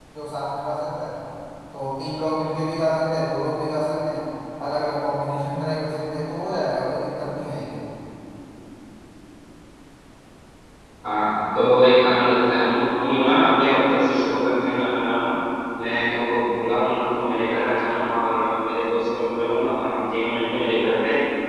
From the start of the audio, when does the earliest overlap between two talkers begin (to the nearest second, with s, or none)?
none